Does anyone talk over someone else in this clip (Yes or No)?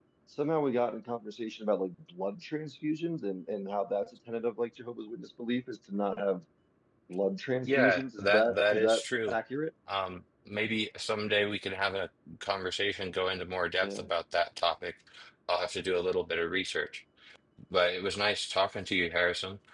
Yes